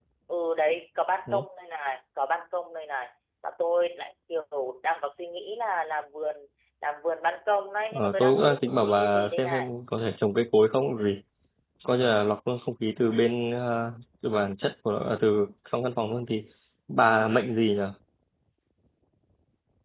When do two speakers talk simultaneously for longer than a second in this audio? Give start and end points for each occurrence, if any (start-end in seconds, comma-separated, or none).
7.9-9.7